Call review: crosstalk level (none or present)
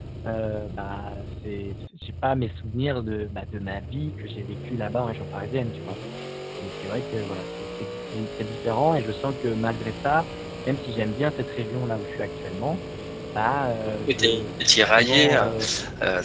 present